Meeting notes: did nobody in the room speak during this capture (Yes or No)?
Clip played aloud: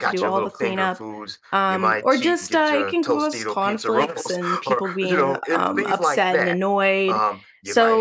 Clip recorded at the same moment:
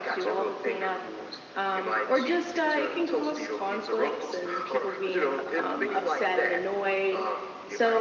Yes